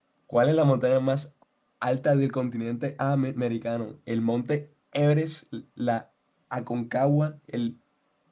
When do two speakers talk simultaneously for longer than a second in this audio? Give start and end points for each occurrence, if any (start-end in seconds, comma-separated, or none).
none